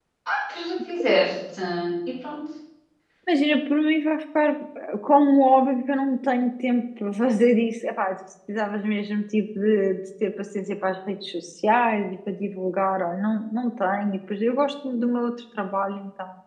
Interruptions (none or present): none